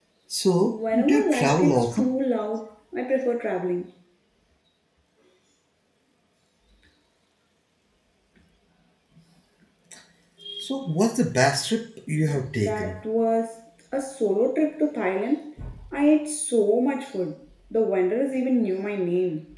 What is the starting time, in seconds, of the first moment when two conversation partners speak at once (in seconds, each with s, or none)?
0.6 s